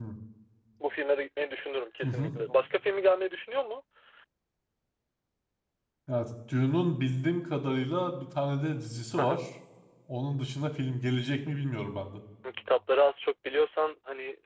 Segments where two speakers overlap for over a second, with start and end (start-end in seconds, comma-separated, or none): none